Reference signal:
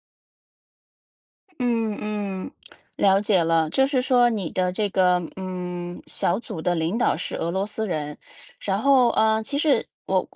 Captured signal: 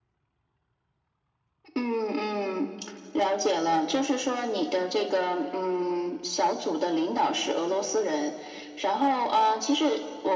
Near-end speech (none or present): none